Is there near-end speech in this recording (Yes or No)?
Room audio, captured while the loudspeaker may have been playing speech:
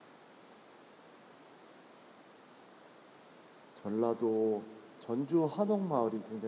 Yes